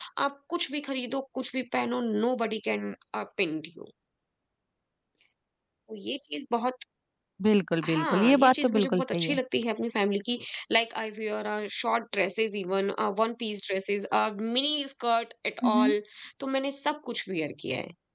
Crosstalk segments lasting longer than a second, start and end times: 7.8-9.4

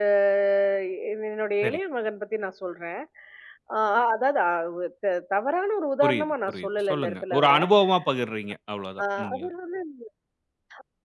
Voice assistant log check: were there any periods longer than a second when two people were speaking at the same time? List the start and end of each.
6.0-7.5

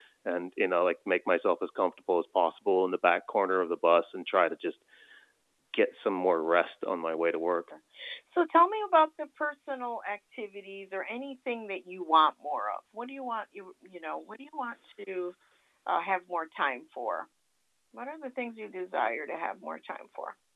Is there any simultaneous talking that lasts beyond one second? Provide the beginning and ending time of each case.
none

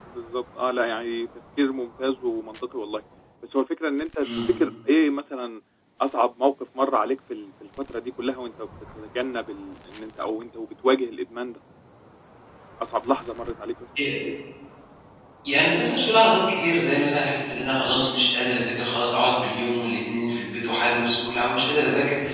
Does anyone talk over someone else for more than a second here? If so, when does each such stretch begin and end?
none

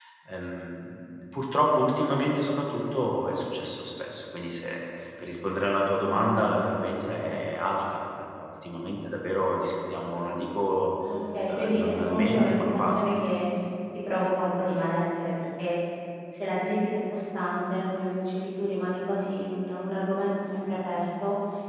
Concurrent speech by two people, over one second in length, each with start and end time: 11.4-13.1

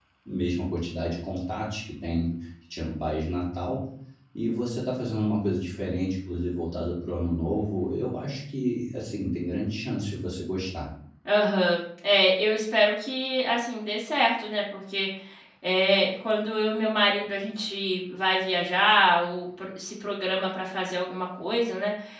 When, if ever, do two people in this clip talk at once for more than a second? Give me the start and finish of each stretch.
none

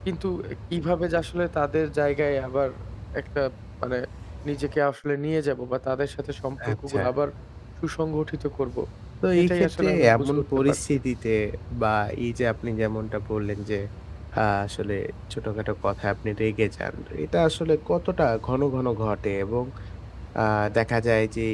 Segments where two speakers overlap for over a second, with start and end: 9.4-10.8

